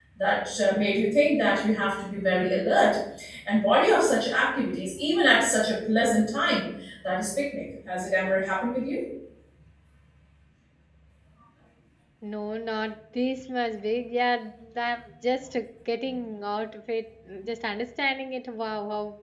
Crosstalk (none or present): none